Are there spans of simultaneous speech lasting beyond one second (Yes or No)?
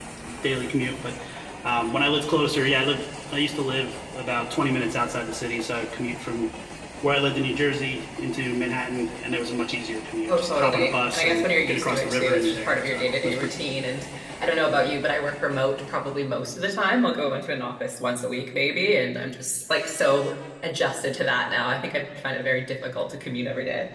Yes